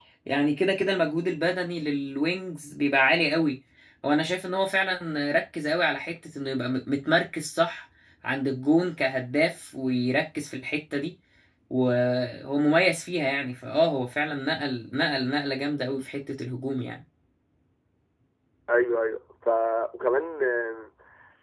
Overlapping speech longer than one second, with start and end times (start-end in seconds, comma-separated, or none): none